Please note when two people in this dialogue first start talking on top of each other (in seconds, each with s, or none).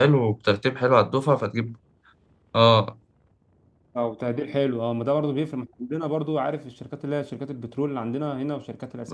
none